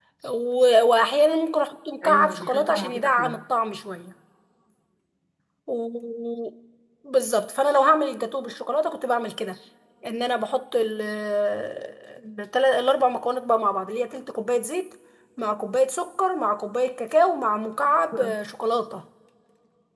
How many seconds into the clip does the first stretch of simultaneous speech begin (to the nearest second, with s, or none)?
2 s